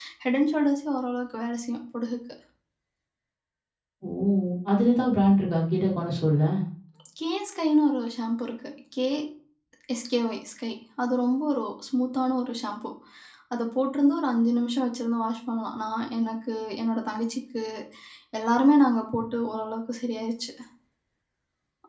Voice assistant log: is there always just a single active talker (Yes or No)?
Yes